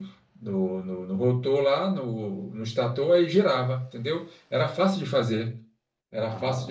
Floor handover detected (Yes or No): No